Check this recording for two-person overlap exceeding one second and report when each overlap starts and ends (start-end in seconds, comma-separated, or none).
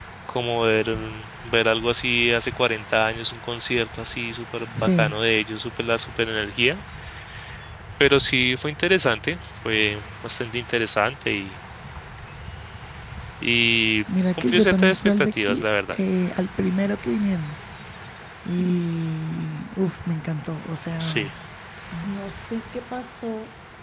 14.4-16.0